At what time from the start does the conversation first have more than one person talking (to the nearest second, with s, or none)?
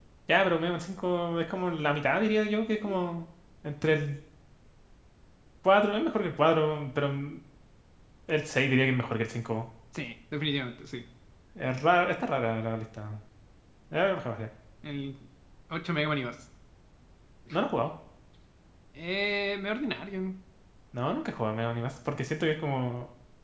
none